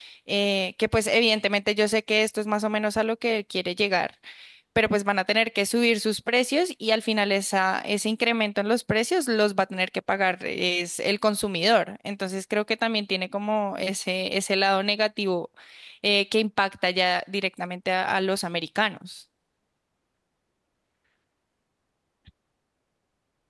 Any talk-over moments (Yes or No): No